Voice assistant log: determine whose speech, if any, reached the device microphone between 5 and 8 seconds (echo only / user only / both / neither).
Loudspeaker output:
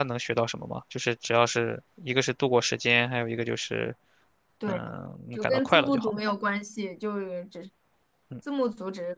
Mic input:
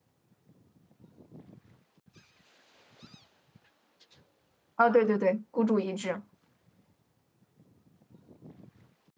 user only